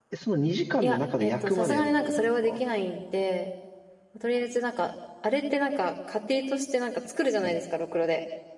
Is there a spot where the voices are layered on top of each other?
Yes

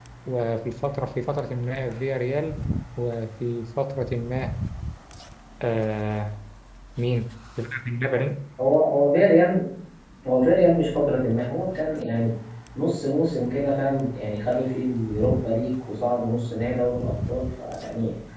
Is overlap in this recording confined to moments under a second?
Yes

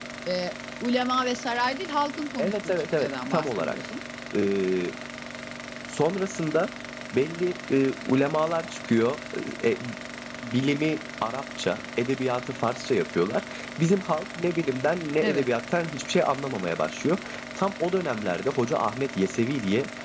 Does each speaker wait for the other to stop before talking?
No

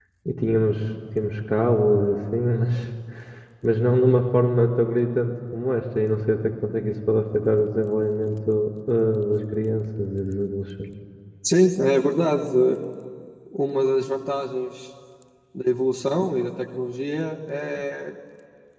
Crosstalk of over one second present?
No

